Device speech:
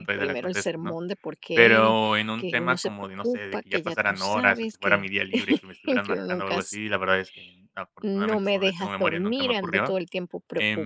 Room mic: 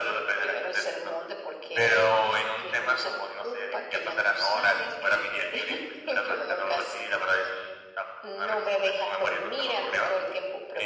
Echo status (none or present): present